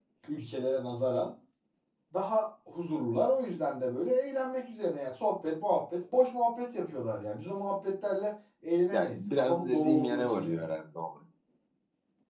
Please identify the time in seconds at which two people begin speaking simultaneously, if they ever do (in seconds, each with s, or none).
8.9 s